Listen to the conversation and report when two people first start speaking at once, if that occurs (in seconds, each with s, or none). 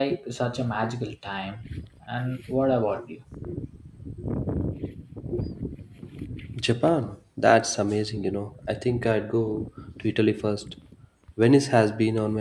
none